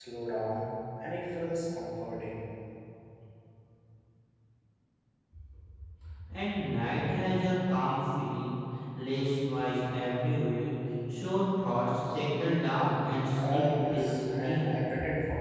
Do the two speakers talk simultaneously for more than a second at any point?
Yes, from 13.3 s

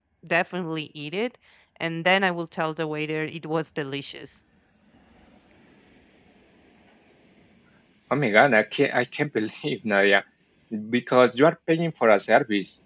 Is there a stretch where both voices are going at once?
No

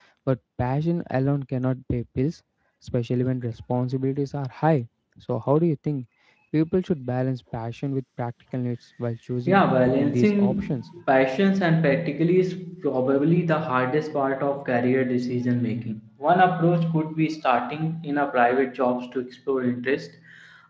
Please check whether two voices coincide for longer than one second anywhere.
Yes, from 9.5 s

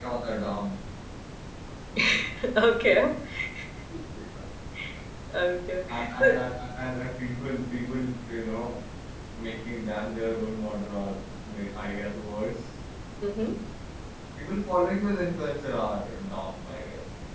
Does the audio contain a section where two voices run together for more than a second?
No

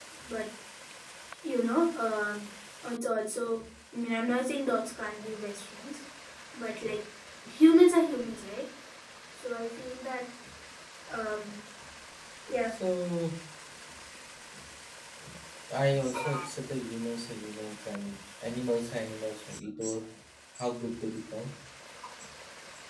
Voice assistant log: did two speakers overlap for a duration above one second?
No

